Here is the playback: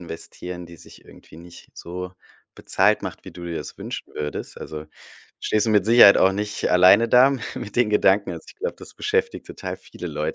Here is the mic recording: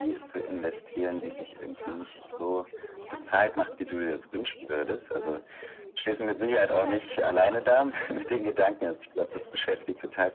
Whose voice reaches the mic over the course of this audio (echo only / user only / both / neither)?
both